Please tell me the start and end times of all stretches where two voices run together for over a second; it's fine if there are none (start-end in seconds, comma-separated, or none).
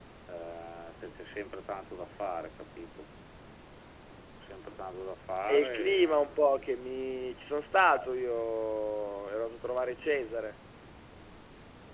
5.5-6.8